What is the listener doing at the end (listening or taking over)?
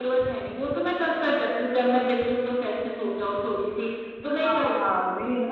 taking over